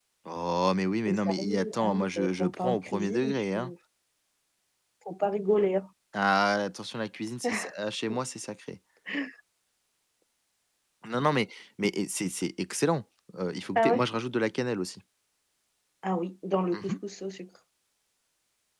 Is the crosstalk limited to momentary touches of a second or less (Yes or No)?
No